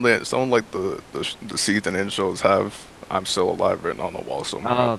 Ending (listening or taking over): taking over